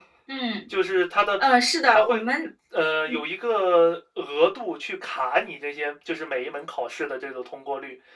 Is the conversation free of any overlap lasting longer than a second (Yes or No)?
Yes